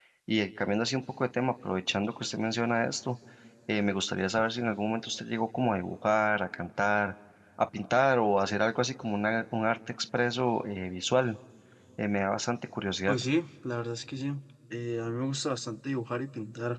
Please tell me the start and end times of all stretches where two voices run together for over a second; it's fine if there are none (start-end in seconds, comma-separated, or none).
none